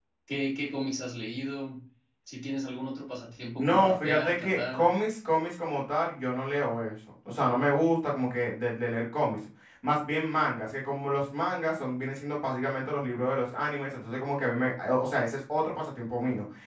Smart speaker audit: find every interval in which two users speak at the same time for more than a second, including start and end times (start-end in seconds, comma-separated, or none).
3.6-4.8